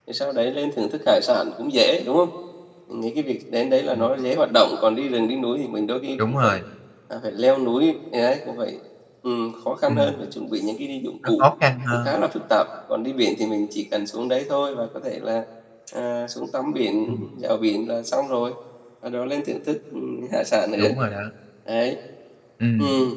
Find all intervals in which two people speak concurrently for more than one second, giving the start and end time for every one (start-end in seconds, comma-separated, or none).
none